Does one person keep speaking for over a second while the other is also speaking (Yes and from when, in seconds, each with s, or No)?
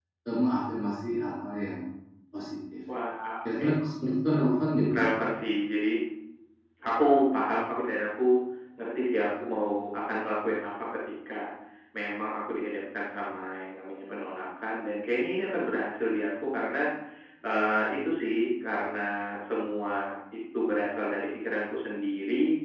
No